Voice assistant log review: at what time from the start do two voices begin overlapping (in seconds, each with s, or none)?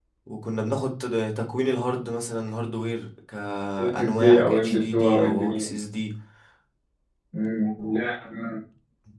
3.8 s